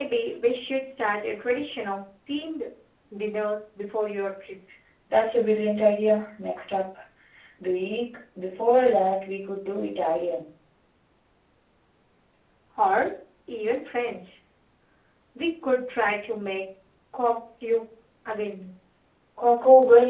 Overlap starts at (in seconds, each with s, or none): none